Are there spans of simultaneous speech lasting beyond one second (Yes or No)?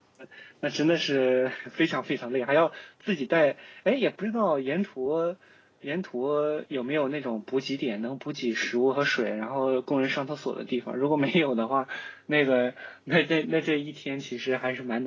No